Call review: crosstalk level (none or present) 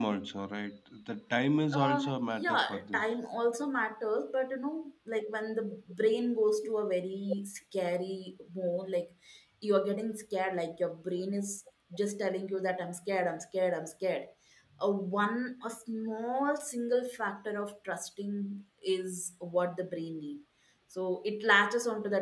present